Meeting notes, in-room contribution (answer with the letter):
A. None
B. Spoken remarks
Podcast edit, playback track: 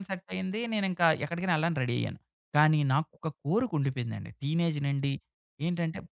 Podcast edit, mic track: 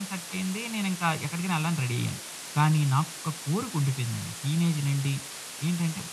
A